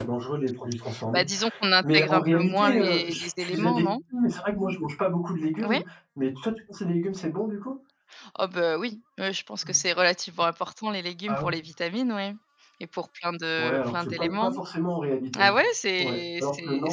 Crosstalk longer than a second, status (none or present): present